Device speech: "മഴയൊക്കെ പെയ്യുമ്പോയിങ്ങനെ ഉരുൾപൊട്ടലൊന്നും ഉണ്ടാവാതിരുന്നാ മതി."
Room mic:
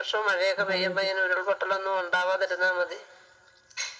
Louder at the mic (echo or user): echo